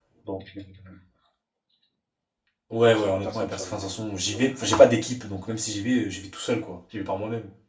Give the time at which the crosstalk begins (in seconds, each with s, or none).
2.9 s